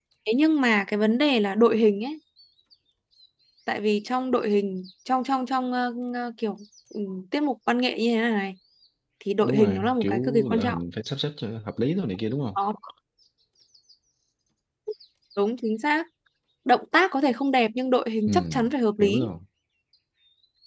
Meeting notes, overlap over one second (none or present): present